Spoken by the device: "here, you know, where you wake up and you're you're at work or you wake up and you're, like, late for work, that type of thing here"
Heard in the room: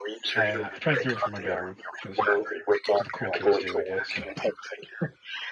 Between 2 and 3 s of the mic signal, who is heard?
both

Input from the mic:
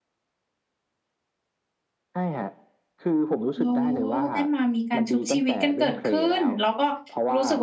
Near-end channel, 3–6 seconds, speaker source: both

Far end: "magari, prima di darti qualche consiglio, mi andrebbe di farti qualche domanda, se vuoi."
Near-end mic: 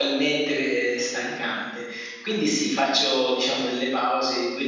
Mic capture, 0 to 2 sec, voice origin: user only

